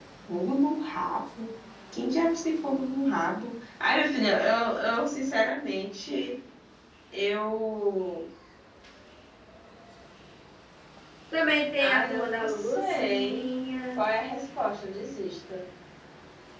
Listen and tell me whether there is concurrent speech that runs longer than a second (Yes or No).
Yes